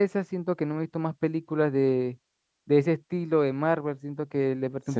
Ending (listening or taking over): listening